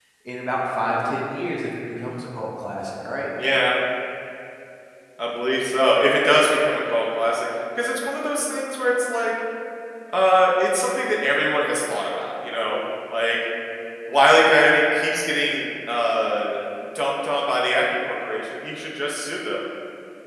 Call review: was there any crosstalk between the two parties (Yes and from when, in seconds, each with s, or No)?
No